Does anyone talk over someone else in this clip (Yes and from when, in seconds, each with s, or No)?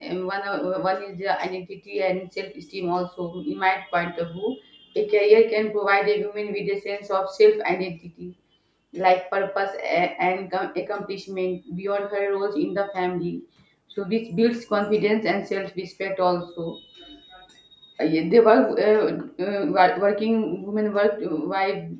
No